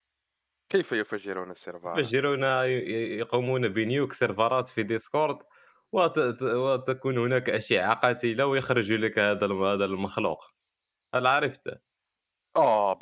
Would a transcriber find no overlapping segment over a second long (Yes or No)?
Yes